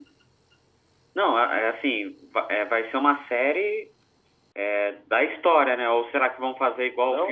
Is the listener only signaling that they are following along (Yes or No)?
No